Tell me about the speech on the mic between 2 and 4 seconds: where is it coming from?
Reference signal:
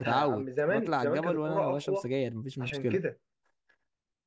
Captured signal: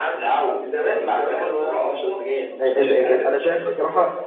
both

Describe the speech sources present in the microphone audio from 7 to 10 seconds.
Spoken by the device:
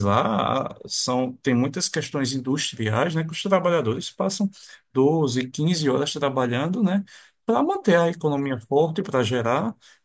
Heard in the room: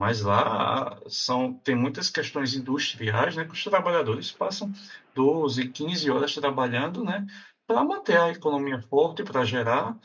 echo only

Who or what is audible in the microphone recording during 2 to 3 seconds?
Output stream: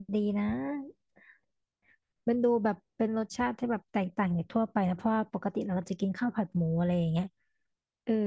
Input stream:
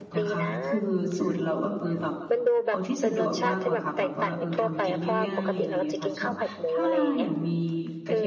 both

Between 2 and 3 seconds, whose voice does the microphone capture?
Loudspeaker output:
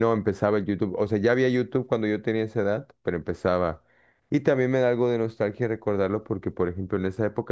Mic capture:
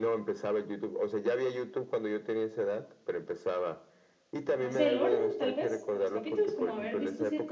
echo only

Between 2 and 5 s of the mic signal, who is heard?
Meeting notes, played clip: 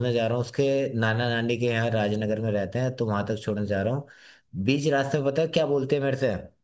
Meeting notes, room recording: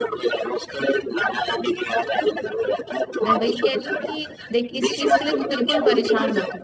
both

